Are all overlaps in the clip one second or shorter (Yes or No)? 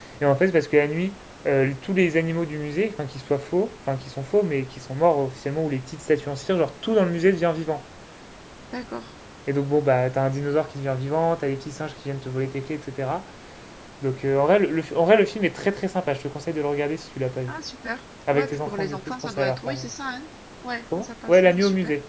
No